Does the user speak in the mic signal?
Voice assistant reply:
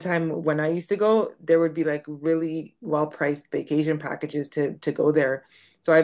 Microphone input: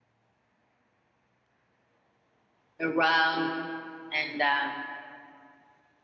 Yes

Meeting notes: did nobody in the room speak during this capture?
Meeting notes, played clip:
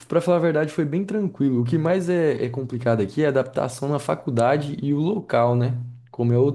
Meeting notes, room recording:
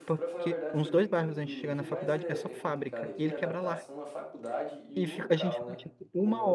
No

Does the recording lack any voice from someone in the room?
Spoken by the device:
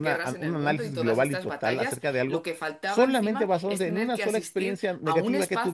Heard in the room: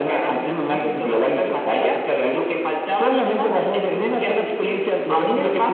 Yes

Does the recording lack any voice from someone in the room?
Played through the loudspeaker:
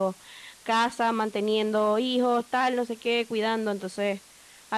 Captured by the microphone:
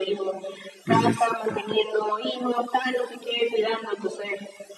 No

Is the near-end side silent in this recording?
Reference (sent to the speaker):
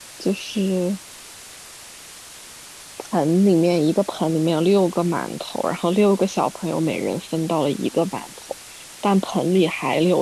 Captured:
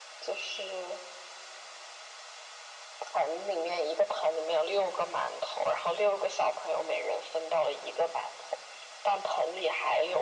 Yes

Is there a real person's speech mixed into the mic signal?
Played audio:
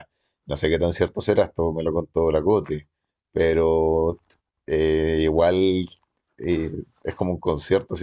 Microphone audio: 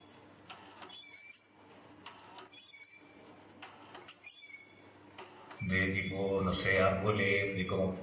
Yes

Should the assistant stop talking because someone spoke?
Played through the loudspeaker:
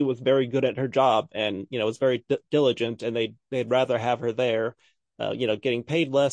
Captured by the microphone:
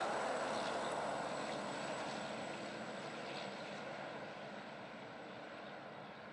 No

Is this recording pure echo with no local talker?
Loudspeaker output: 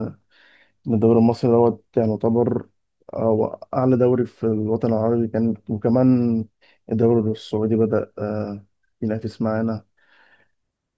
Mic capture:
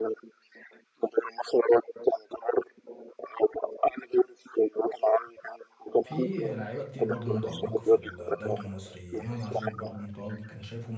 No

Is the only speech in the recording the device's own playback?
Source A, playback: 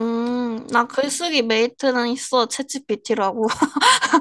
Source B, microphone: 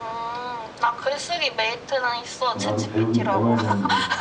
No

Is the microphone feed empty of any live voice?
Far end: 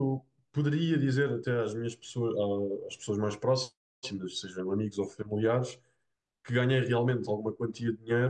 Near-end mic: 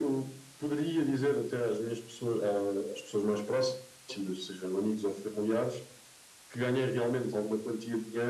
Yes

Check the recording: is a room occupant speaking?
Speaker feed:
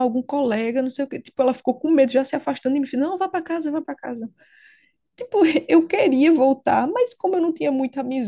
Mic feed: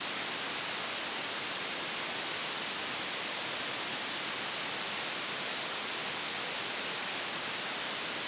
No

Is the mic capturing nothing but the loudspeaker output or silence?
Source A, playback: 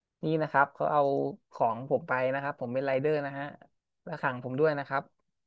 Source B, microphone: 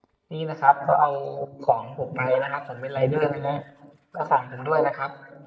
Yes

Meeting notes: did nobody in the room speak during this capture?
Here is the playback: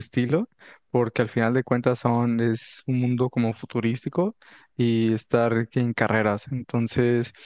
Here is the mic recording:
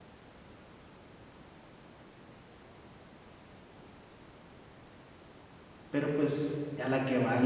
No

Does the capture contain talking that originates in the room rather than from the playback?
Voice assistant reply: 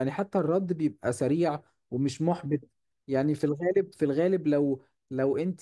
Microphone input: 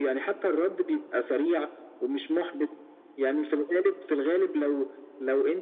No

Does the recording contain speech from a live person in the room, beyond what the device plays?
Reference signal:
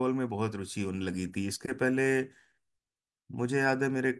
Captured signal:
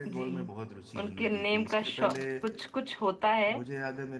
Yes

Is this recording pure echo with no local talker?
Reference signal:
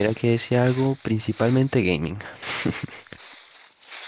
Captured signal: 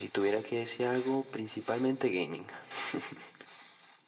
Yes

